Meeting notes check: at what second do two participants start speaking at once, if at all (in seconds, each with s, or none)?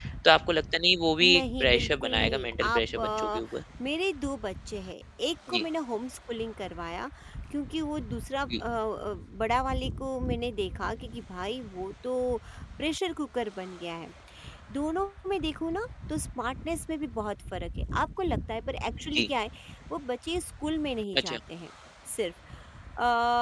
1.2 s